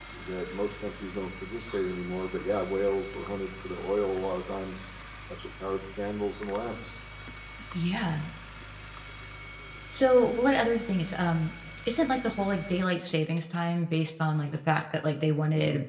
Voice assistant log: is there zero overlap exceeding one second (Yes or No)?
Yes